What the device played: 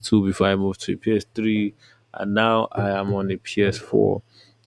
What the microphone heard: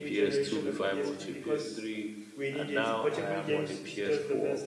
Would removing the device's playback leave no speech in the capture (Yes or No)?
No